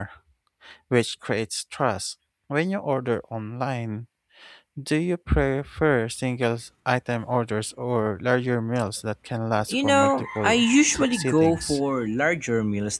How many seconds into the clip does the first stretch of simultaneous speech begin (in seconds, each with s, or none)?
9.7 s